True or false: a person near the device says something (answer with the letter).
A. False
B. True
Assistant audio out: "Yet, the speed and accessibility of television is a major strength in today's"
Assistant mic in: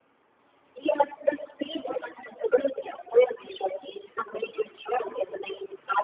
A